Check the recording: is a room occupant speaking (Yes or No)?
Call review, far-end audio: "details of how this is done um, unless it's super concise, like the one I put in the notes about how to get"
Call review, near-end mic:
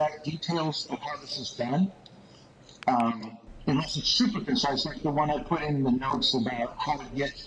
No